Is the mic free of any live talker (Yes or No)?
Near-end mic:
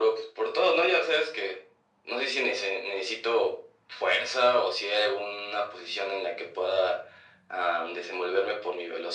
Yes